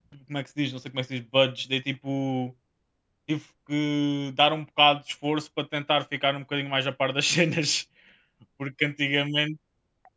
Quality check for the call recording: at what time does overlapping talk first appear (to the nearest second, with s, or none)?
none